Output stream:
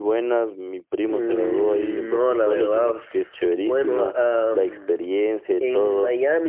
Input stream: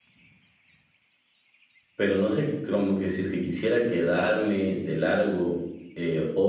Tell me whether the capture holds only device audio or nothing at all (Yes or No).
No